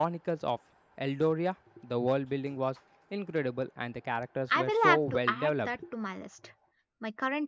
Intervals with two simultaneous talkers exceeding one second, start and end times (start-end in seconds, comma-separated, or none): 4.5-5.8